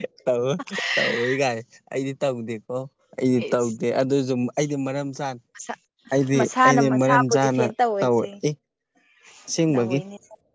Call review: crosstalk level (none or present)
present